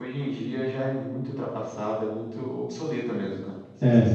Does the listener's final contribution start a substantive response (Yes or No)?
Yes